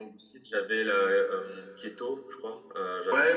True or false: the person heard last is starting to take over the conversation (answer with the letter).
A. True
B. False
A